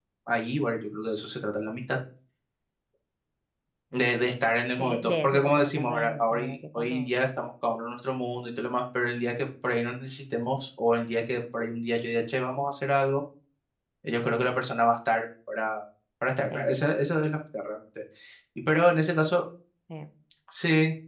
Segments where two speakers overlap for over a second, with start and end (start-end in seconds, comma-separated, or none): 4.8-7.1